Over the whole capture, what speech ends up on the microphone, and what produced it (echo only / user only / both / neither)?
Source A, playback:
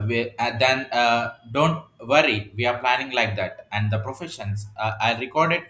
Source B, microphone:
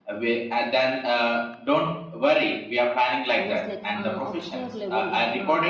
both